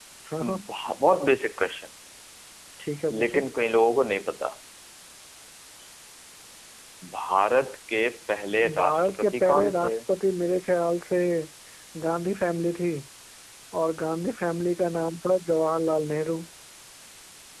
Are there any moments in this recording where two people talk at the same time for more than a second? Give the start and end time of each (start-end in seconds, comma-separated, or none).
8.8-10.0